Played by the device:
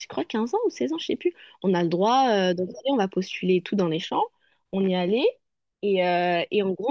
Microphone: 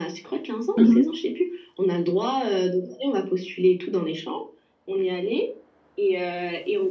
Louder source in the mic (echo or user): user